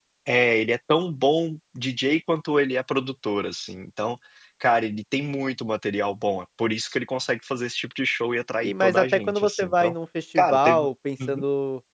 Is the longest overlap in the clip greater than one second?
Yes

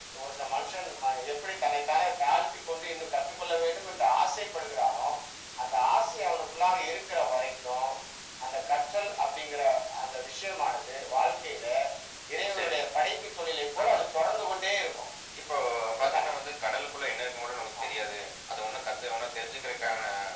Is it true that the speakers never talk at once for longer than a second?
Yes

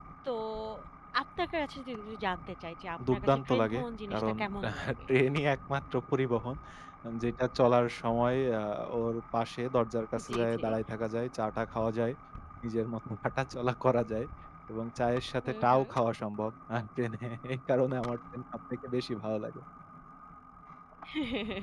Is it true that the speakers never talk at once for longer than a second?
No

